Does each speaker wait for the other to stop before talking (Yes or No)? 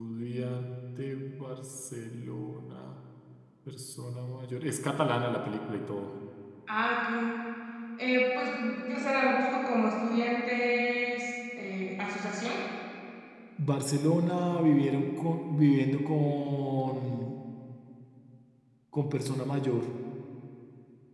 Yes